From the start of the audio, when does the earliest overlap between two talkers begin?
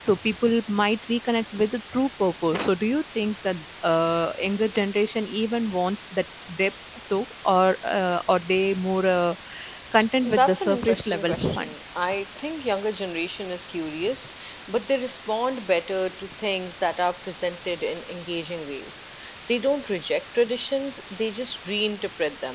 10.3 s

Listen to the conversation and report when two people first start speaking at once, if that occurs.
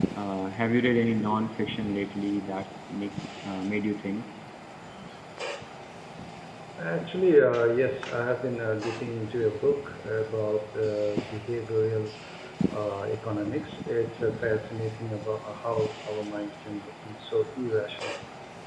none

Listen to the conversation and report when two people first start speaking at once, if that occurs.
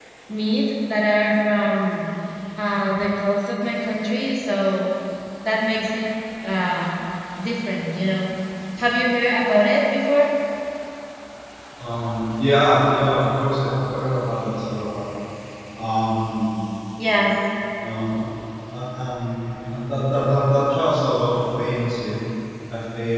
none

